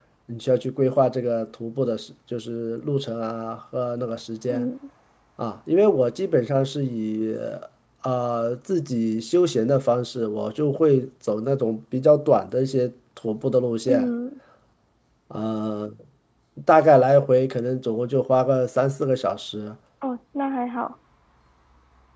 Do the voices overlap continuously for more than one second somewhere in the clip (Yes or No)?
No